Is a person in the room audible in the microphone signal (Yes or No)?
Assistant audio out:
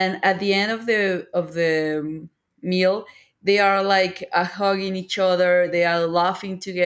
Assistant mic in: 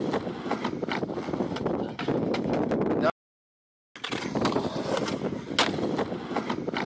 No